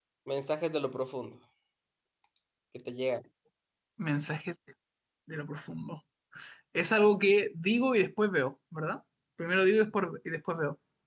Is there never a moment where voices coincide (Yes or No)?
Yes